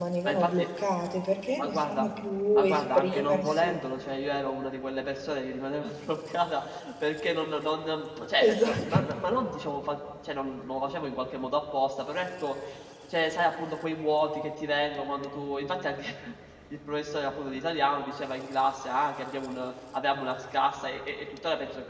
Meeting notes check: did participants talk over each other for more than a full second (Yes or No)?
Yes